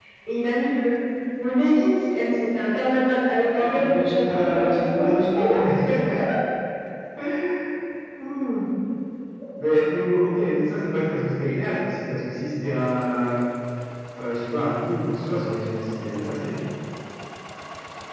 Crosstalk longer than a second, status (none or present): present